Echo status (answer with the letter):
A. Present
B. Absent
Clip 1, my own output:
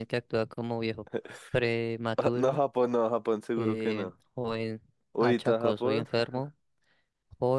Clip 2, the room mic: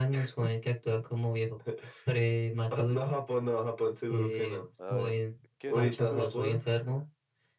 A